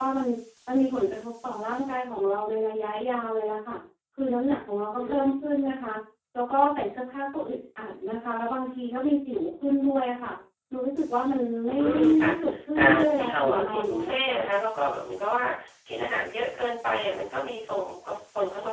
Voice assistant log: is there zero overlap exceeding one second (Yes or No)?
No